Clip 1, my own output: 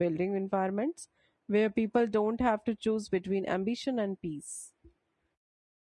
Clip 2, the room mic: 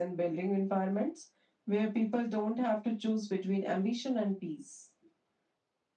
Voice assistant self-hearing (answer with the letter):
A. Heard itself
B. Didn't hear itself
A